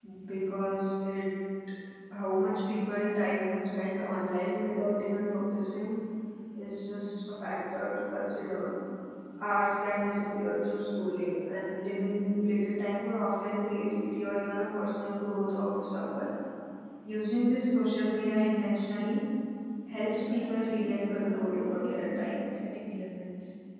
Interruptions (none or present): present